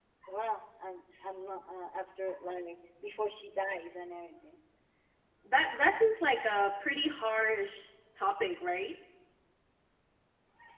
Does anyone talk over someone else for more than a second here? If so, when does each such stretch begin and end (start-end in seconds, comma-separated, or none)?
none